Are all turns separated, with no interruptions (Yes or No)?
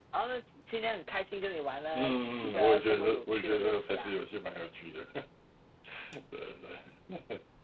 No